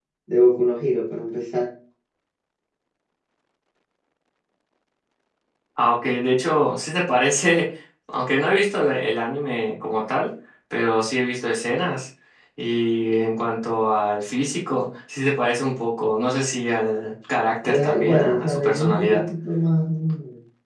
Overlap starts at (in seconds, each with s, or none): 17.6 s